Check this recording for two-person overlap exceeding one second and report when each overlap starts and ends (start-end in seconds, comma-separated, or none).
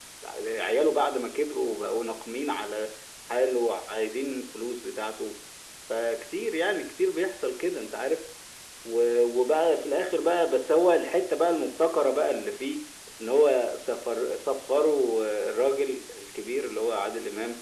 none